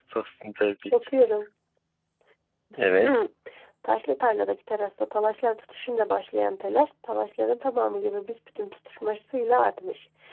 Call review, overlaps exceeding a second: none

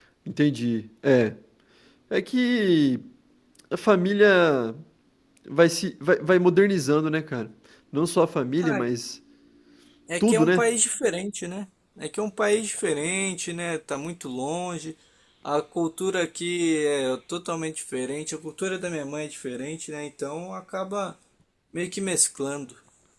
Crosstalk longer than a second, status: none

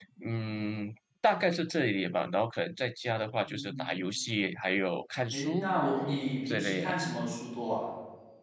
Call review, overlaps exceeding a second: none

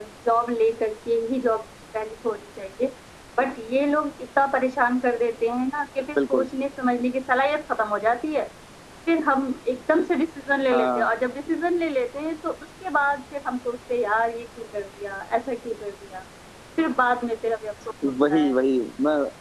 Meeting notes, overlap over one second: none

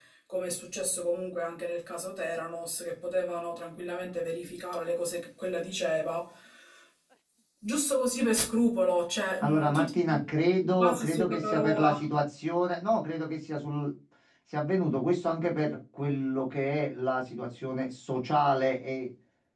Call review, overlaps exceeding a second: present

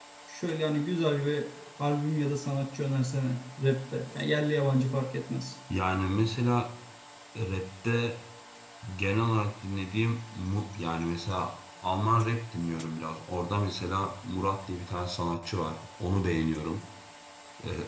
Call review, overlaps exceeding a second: none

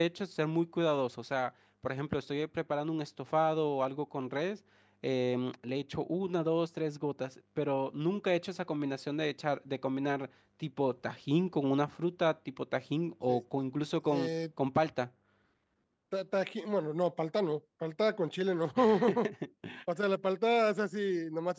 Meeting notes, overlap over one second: none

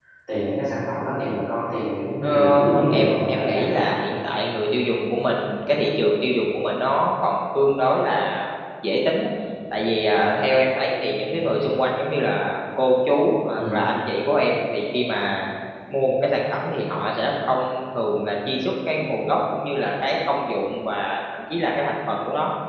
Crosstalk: present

